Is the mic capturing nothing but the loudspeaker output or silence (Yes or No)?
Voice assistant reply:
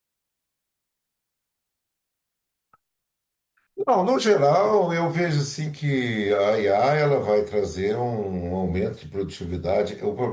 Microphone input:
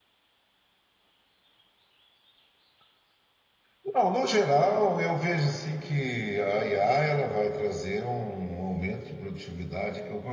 Yes